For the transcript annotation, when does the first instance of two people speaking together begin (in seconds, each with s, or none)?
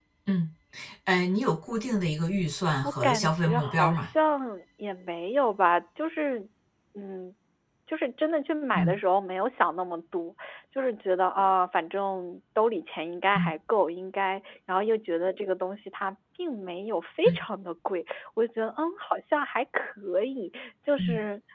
2.8 s